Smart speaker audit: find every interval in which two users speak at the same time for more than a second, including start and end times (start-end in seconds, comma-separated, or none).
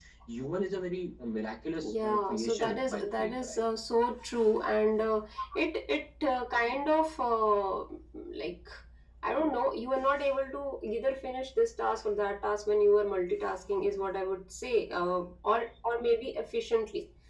1.8-3.6